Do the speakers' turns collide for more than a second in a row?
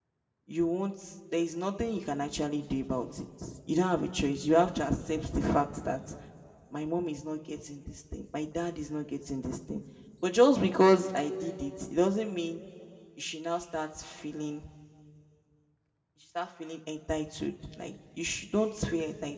No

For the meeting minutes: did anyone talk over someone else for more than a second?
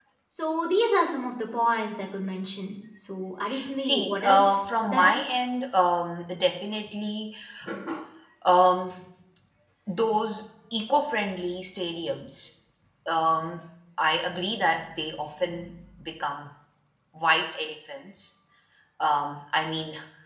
Yes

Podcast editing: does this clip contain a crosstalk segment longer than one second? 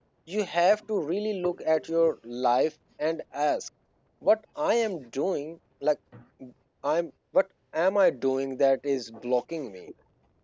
No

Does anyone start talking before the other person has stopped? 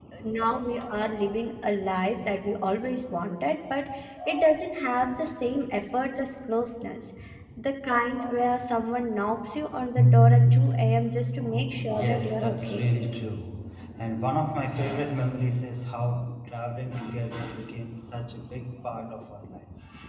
Yes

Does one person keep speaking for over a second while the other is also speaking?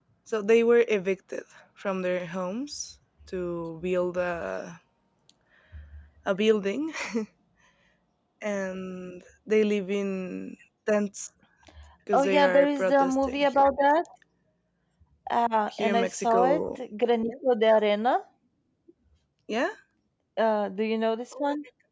Yes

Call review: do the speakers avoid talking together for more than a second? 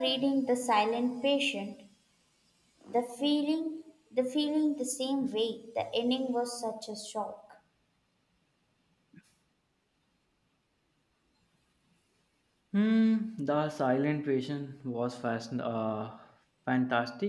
Yes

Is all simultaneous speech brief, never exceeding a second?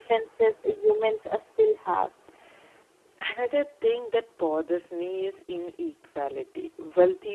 Yes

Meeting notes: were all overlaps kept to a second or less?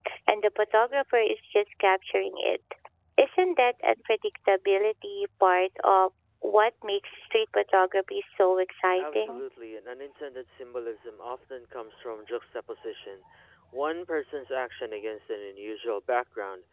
Yes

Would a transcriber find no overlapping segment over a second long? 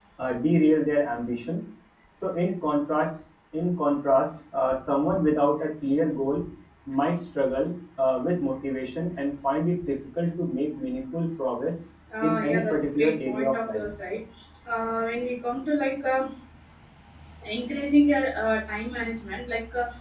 No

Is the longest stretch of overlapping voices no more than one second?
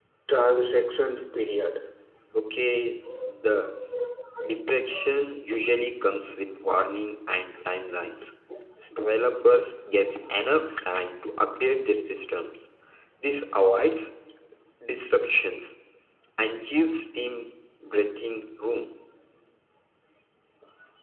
Yes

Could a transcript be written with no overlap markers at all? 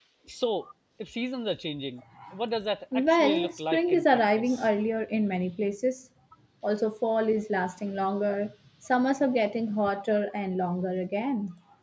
No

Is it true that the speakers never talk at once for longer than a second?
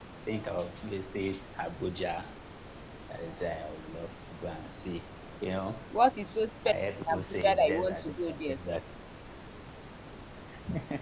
No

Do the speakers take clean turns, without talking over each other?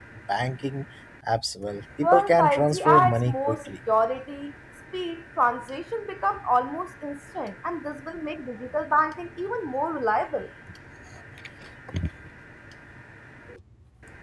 No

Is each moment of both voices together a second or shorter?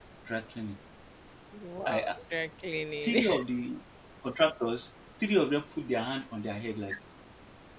Yes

